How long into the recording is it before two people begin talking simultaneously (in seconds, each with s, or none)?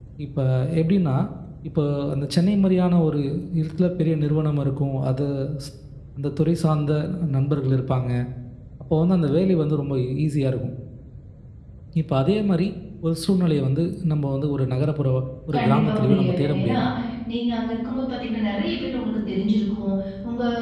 15.6 s